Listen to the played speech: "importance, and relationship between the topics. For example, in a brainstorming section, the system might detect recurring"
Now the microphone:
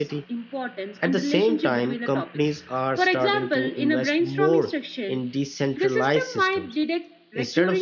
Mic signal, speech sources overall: both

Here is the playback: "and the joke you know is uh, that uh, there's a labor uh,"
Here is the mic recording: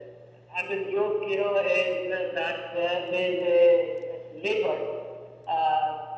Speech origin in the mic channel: echo only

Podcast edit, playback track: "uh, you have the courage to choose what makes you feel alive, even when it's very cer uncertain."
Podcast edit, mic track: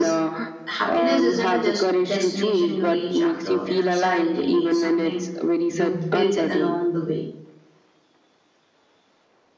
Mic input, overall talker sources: both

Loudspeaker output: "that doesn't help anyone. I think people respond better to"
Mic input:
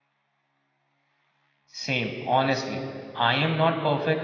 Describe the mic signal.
user only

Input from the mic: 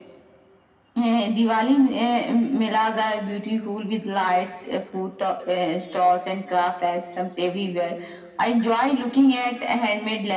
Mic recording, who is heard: echo only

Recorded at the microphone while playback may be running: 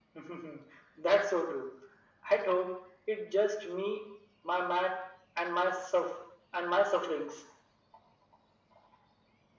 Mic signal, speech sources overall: echo only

